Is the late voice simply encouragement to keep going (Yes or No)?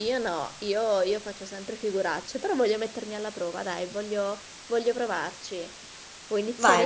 No